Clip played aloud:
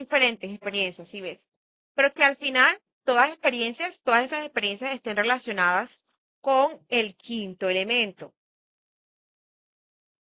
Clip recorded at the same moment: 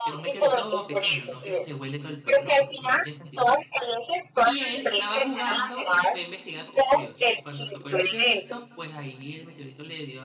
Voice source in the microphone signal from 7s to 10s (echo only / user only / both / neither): both